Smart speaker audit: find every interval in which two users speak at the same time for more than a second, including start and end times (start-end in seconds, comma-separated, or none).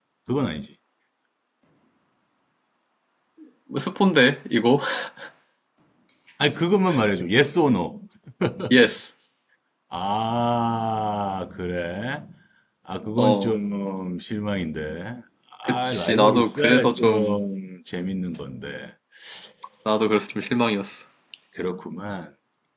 15.7-17.4